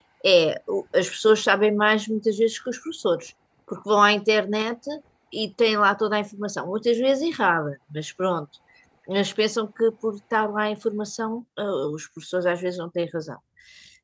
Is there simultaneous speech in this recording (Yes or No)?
No